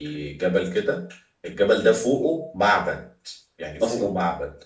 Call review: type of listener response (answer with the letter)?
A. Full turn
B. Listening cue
B